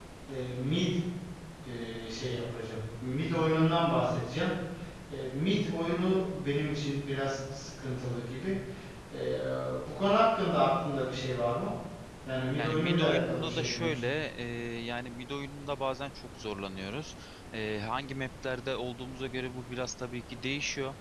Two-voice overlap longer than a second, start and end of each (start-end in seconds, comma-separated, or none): 12.6-14.1